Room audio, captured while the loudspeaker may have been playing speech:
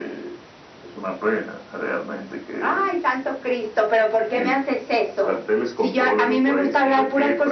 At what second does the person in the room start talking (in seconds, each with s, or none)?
none